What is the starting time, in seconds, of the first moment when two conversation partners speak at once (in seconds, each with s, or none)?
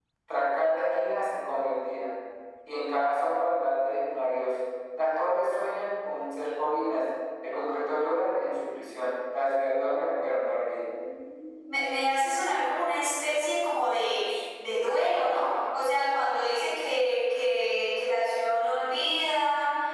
none